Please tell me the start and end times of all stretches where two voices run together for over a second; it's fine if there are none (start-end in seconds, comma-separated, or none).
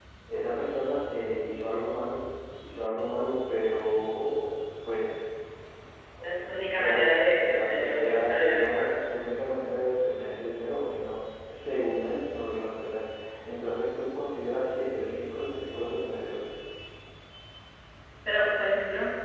6.8-9.0